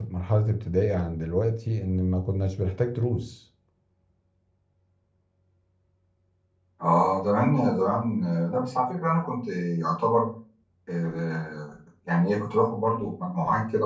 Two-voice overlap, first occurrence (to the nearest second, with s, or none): none